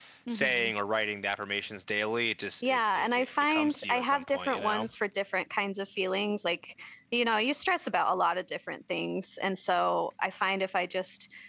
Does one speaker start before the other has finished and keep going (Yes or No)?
Yes